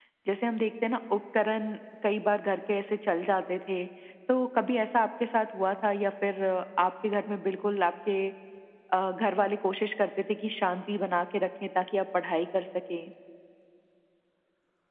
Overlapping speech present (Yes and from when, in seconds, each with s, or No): No